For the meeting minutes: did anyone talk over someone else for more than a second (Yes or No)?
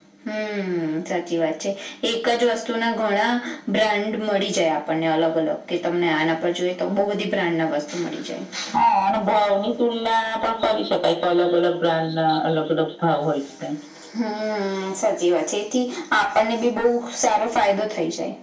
No